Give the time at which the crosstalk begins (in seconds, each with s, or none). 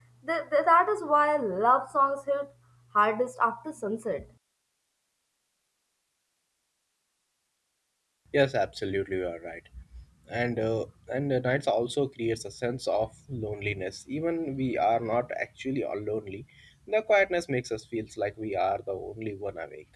none